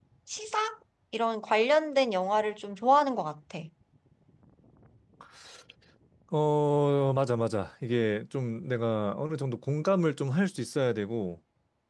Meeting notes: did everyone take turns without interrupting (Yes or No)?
Yes